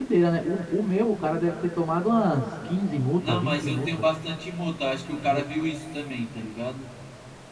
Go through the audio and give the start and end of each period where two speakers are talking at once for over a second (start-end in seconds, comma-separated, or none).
2.6-4.0